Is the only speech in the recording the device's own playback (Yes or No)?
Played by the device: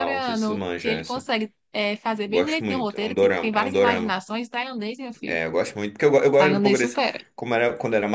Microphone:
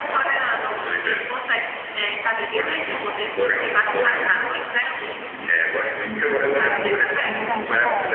No